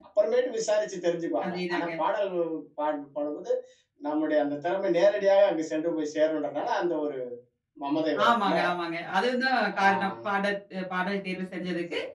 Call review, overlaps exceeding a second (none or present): none